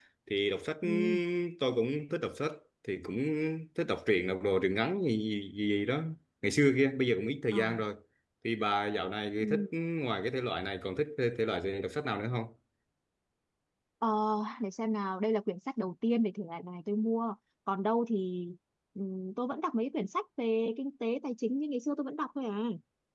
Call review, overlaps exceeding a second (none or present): none